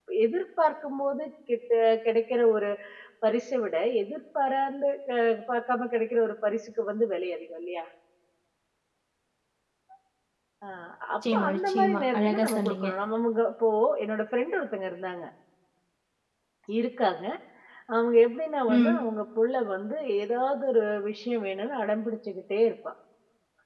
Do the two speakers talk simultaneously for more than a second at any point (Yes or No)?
Yes